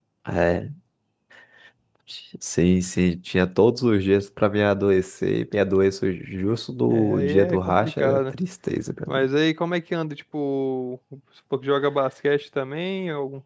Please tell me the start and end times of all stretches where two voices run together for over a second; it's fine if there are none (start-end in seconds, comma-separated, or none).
6.9-8.4